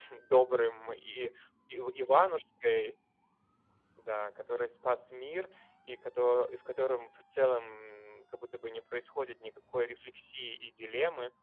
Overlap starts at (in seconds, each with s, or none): none